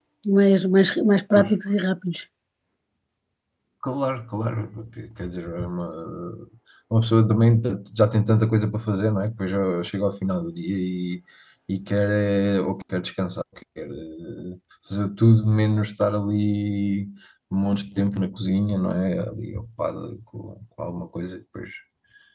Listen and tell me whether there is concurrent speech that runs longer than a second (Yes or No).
No